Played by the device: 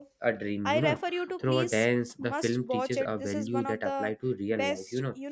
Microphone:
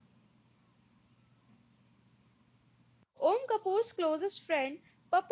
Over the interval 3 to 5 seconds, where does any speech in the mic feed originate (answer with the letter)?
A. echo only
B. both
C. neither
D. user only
D